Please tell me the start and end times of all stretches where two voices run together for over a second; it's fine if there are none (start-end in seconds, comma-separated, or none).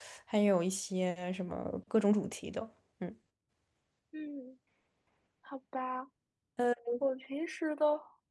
none